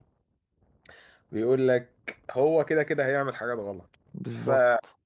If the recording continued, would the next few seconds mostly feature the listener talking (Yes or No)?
No